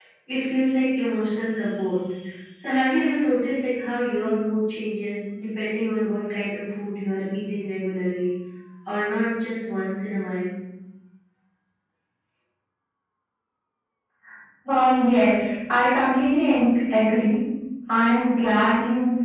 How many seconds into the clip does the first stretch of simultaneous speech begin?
none

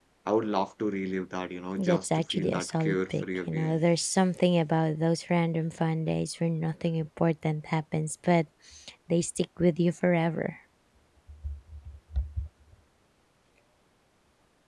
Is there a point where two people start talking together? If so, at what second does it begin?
1.8 s

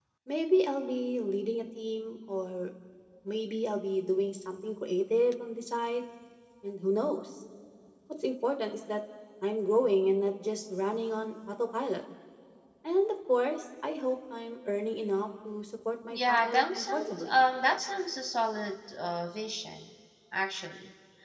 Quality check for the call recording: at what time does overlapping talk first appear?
16.1 s

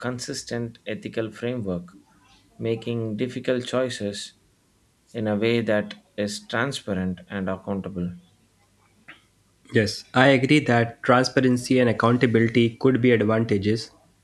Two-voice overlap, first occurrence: none

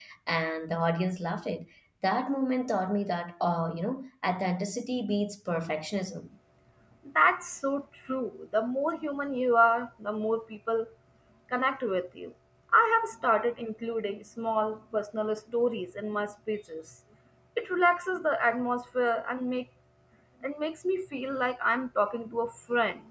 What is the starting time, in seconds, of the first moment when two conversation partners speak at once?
none

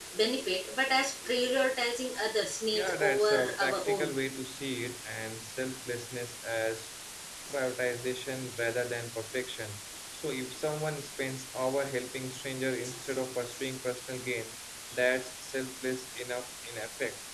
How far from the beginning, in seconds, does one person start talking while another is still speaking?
2.7 s

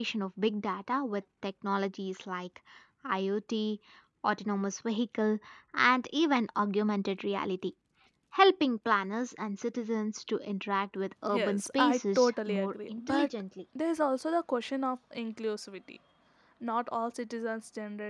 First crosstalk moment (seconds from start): 11.3 s

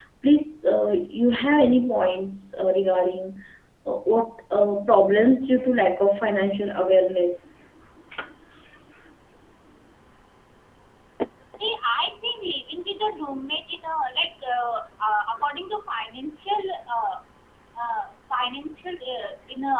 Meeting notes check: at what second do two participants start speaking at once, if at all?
none

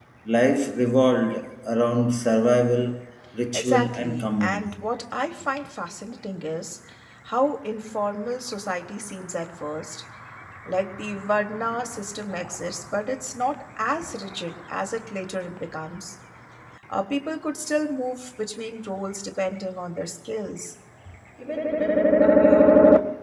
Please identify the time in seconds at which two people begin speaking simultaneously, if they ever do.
3.5 s

